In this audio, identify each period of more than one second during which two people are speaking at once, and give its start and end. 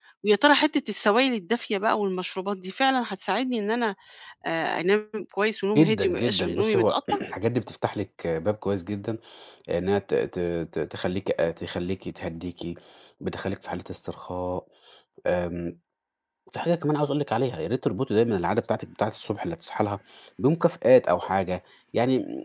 5.8-7.2

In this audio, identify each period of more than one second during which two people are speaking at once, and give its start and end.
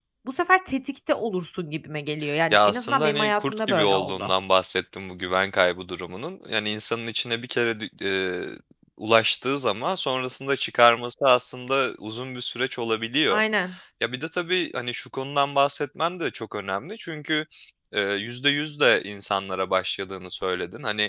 2.5-4.3

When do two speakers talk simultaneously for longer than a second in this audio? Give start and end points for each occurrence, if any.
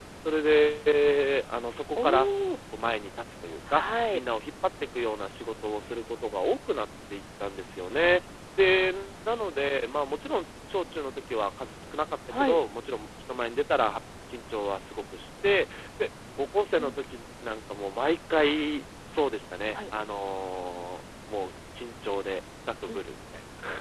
none

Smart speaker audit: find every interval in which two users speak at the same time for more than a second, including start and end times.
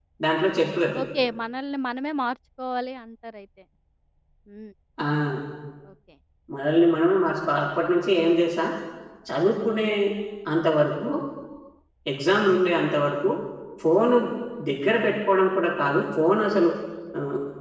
none

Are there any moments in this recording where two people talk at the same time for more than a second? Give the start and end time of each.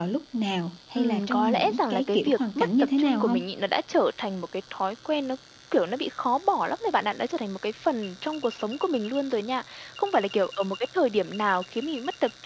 1.0-3.4

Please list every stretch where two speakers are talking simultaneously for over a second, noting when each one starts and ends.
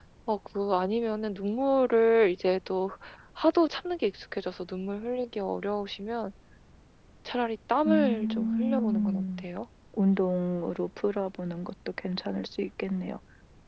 7.8-9.4

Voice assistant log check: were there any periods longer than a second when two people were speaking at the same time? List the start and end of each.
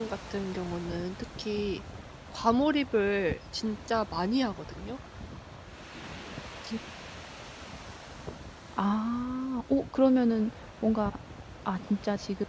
none

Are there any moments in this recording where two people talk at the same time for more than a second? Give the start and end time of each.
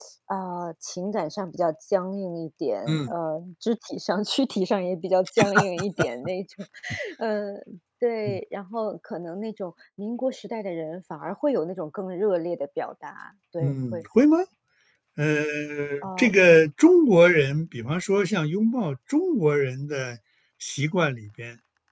none

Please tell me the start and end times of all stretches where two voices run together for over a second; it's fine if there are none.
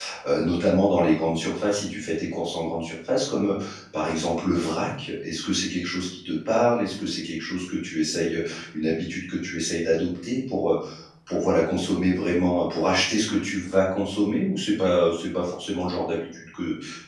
none

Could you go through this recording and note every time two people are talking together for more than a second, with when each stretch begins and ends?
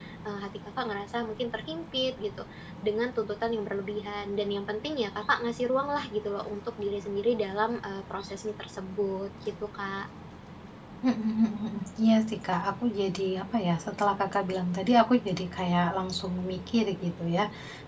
none

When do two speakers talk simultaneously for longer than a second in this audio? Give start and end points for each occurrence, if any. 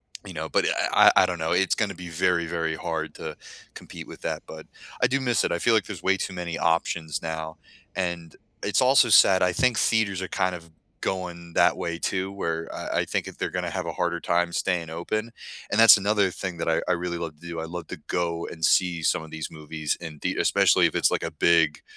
none

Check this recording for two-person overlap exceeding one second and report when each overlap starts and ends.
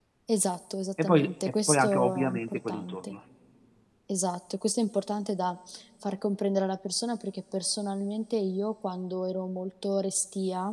1.0-3.1

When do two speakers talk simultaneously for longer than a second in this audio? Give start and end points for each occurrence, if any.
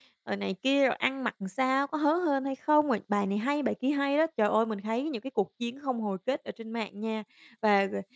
none

